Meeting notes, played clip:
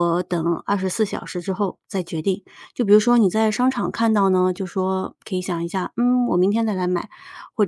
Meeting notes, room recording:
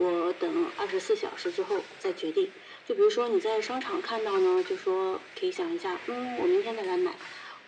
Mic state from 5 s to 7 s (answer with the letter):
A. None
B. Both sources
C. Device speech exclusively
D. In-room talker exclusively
C